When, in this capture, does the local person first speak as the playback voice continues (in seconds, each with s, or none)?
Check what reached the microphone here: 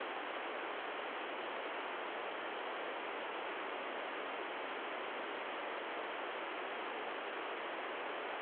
none